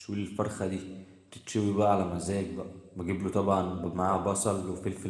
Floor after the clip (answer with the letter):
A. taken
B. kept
B